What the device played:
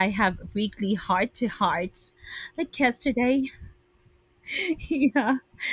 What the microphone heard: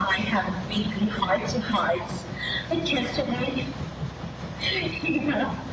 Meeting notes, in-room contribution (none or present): none